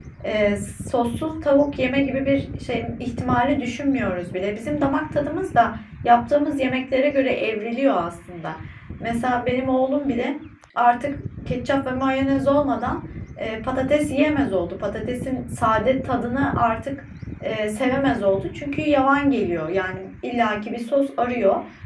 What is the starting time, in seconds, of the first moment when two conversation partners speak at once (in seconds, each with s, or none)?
none